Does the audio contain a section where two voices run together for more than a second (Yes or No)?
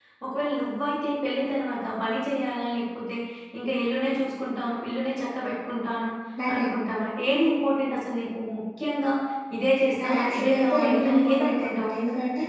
Yes